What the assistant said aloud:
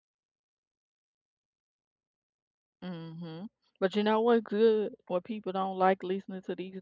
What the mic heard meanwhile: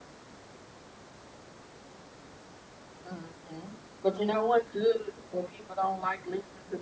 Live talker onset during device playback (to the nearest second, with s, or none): none